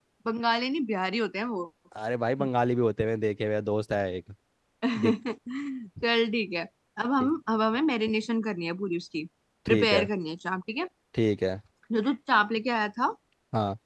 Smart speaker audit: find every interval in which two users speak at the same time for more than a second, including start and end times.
none

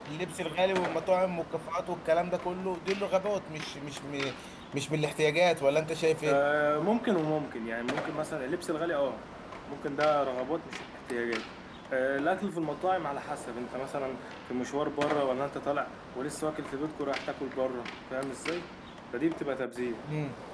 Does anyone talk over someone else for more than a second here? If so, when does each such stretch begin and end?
none

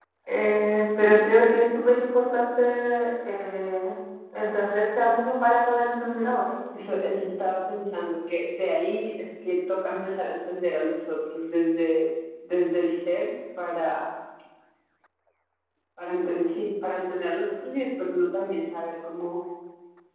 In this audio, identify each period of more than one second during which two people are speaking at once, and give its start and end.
none

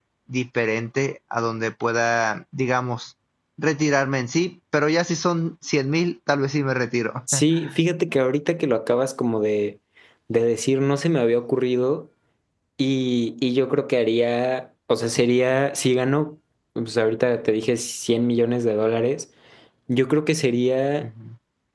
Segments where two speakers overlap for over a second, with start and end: none

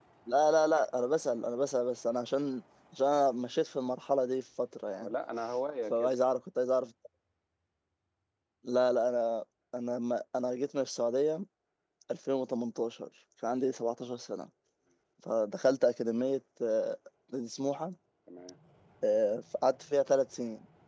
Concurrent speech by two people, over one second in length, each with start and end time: none

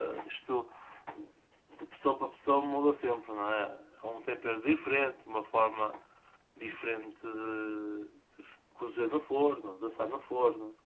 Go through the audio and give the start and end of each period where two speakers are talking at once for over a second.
none

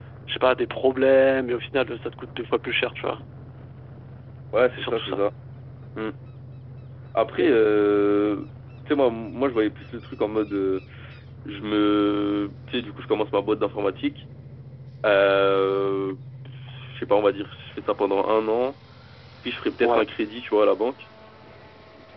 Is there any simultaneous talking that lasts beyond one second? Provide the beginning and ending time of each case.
none

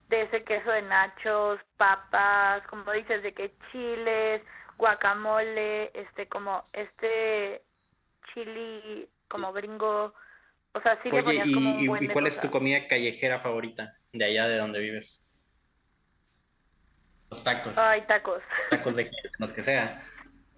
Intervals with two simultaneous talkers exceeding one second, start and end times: 11.1-12.6

